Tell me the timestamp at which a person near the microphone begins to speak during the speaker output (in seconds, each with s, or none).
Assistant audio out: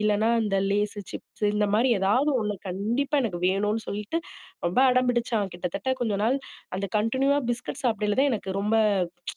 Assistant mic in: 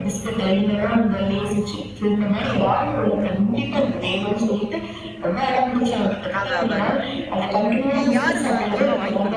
6.4 s